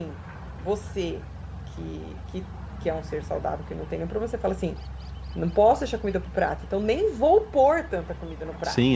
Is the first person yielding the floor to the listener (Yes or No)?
Yes